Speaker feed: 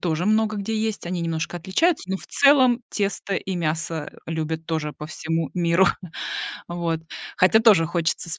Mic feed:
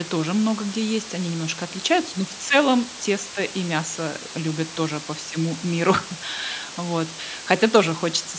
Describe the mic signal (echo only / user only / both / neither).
echo only